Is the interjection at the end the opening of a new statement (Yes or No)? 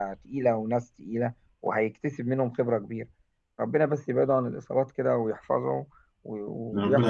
Yes